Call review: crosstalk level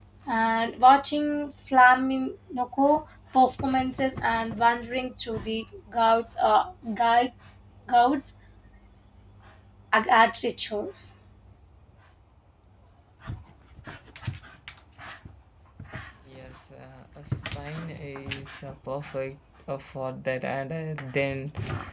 none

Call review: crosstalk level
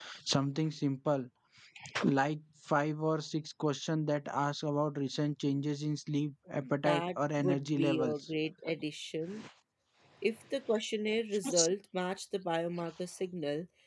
present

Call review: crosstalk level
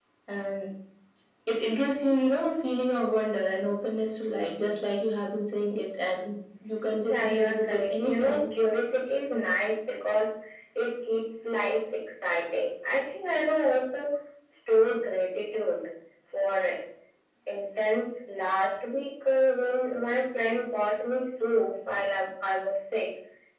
present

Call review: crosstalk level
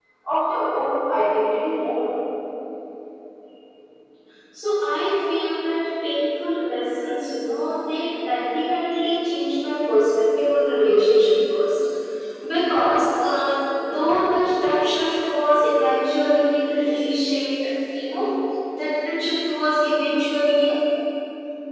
none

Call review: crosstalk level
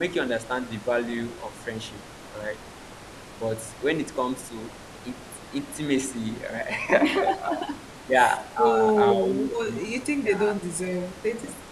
present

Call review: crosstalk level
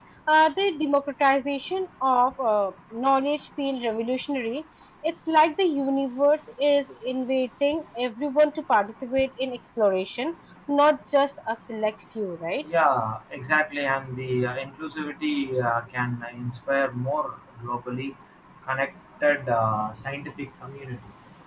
none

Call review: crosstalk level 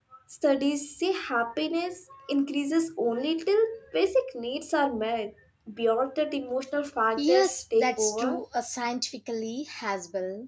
present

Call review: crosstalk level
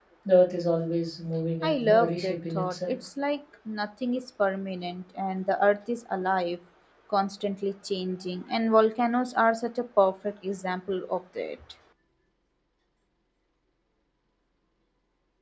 present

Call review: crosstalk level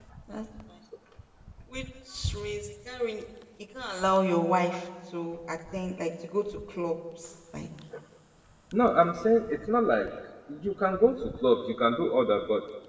none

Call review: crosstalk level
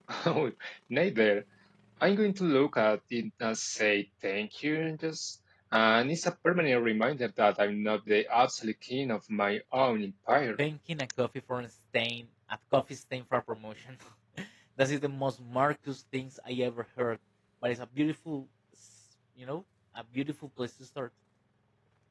none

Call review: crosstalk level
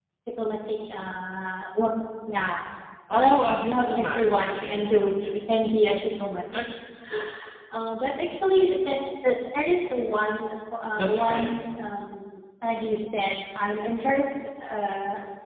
present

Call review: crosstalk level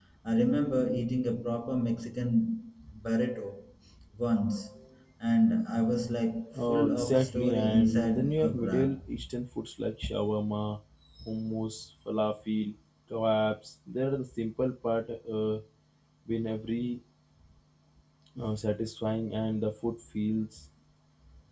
present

